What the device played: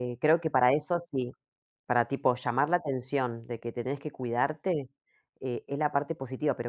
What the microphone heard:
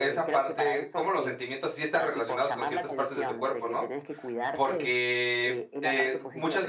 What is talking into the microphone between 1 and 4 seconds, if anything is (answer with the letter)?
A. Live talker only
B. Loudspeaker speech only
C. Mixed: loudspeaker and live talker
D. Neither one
C